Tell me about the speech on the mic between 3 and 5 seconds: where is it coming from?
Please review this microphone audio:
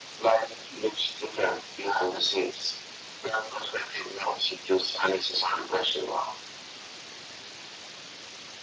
echo only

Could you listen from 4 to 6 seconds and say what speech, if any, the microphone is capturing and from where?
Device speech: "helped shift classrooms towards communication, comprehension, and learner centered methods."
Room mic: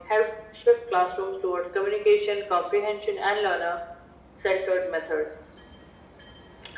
echo only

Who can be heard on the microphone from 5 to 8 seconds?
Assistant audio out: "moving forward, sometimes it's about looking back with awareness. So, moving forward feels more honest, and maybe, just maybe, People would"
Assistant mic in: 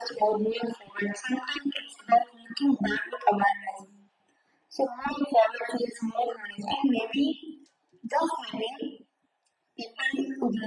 echo only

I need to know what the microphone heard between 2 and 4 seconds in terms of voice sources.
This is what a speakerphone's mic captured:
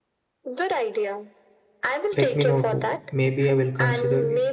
both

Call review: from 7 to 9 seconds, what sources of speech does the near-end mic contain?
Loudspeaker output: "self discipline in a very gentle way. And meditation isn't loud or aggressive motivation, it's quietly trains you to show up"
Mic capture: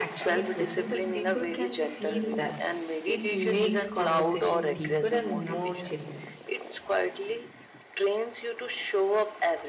echo only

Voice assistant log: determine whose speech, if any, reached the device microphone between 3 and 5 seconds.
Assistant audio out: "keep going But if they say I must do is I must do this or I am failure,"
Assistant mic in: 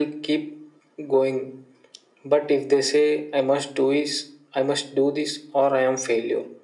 echo only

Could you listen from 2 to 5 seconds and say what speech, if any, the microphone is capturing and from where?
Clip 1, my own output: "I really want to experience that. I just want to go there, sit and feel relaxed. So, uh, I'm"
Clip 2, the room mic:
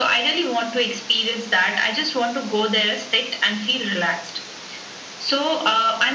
echo only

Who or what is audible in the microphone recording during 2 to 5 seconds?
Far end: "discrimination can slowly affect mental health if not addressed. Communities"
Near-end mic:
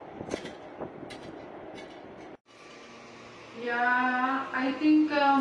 user only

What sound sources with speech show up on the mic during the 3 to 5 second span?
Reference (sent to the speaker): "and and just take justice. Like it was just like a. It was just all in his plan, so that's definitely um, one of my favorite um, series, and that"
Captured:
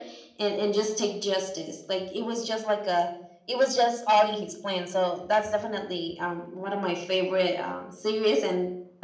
echo only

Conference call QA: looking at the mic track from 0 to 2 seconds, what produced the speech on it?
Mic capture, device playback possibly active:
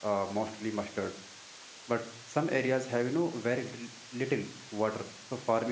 user only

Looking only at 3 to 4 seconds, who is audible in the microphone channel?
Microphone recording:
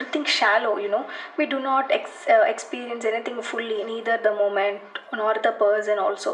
echo only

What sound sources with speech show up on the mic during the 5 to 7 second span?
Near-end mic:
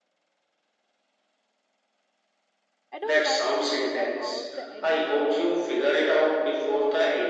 both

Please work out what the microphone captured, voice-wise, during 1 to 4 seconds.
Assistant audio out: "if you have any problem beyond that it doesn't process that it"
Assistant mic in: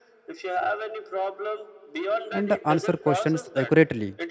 both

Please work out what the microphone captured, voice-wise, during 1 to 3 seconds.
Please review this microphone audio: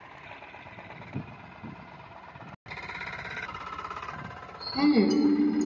neither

